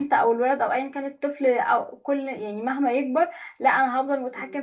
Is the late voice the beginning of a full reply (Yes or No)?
No